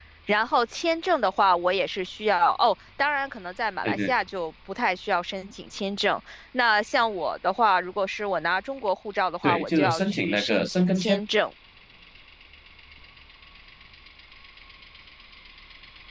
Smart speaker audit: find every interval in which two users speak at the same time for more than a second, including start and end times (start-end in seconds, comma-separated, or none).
9.4-11.2